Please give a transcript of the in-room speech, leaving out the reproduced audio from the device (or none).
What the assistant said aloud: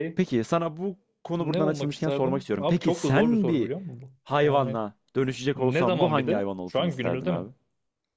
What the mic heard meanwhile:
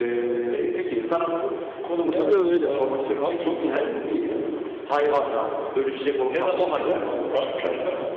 Bilmiyorum öyle.